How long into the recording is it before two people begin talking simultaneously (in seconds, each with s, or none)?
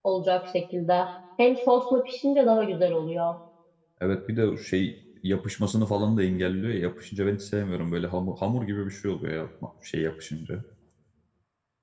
none